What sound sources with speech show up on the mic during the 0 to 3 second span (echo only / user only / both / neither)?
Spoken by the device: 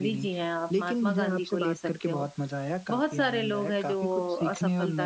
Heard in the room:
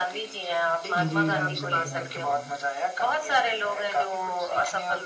both